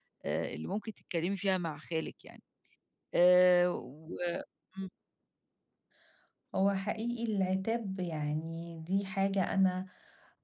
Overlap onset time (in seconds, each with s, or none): none